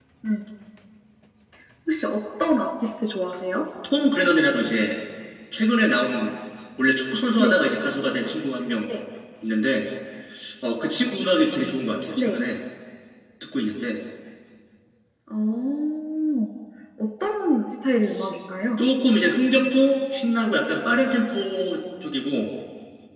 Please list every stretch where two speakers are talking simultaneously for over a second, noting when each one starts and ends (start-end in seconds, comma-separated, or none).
none